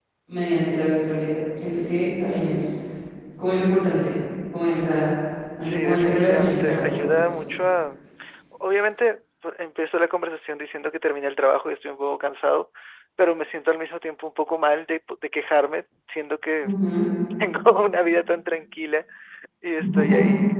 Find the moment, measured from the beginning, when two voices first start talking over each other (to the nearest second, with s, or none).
6 s